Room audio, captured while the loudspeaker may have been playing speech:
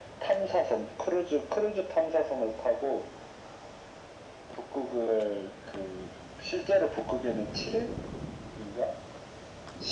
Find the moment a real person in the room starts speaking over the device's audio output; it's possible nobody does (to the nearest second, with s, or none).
none